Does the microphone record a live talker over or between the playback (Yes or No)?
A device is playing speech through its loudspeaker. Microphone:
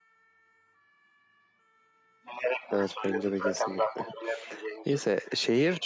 Yes